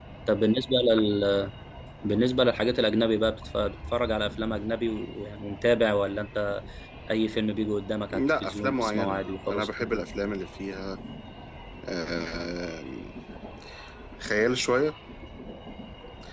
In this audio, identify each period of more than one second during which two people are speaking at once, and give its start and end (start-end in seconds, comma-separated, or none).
8.1-9.9